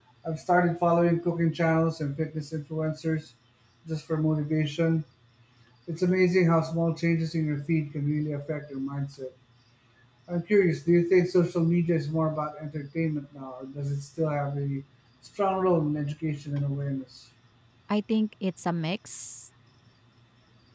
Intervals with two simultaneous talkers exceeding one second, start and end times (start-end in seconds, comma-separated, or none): none